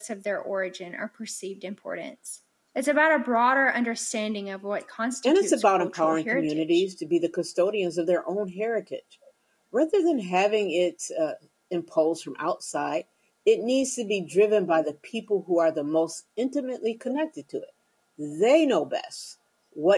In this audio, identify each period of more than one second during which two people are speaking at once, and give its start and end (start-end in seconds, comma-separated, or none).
5.2-6.8